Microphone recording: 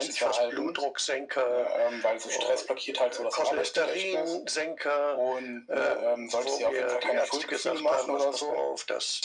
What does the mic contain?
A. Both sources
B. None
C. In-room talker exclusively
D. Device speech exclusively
D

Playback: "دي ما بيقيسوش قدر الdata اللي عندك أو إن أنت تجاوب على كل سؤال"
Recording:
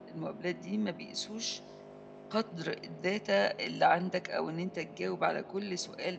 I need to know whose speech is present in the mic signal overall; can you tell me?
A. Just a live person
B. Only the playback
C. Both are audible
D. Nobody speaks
B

